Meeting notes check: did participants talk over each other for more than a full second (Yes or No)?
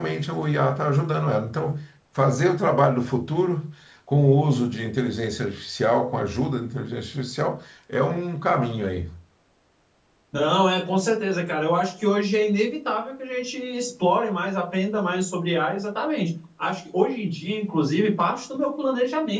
No